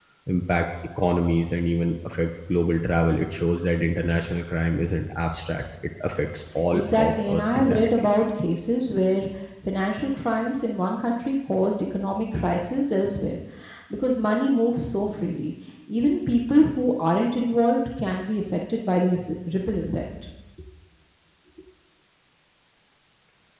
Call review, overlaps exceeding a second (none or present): present